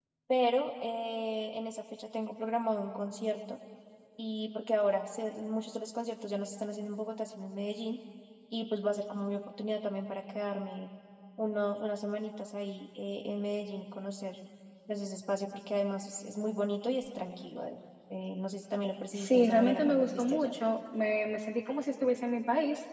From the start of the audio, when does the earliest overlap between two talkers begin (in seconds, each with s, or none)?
19.1 s